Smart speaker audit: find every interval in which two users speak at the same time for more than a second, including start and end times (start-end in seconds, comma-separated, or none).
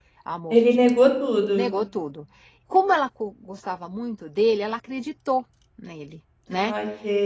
none